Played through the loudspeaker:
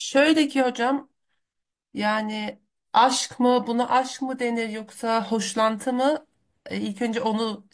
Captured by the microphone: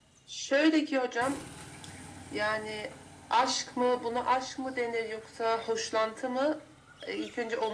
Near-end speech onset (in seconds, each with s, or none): none